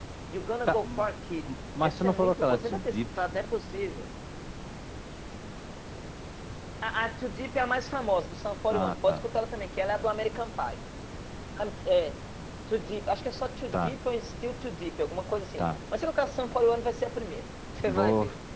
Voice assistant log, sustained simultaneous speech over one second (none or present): present